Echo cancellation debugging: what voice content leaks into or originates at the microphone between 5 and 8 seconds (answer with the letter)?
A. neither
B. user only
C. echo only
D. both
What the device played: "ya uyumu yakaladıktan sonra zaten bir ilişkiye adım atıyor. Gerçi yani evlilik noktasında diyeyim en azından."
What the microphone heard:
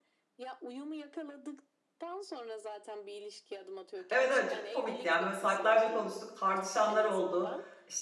D